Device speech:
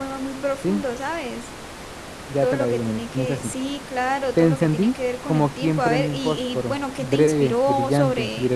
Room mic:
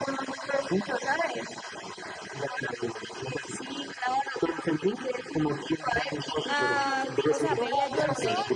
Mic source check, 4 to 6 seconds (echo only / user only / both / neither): echo only